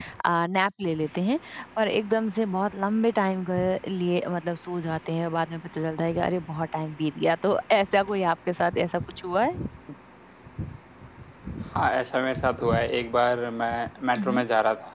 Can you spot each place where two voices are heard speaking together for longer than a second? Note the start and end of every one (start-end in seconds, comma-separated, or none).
none